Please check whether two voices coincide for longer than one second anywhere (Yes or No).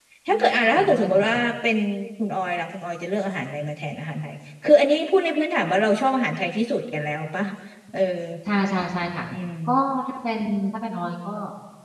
Yes